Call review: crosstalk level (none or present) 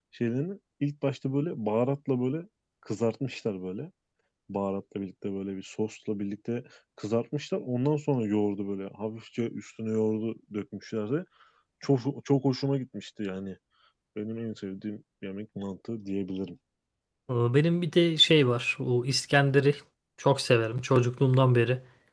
none